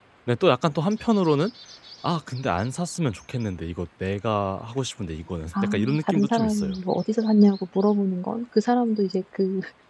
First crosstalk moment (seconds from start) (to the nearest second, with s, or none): 6 s